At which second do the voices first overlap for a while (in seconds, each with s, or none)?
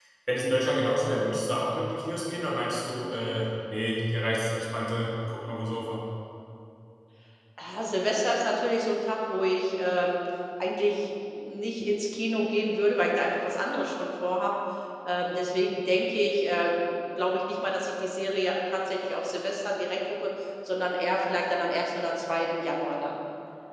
none